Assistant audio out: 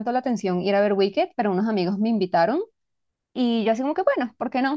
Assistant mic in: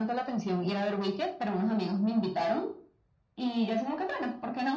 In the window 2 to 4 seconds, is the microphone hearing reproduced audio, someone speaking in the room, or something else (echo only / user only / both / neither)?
echo only